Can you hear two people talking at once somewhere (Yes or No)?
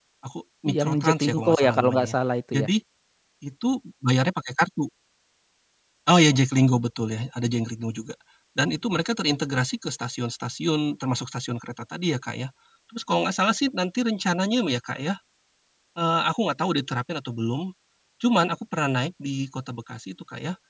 Yes